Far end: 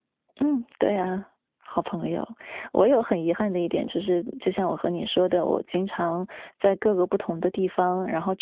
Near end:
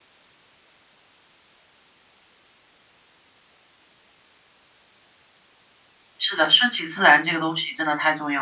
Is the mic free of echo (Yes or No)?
Yes